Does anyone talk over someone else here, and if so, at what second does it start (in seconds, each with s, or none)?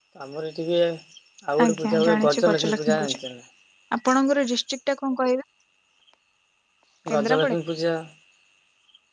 1.7 s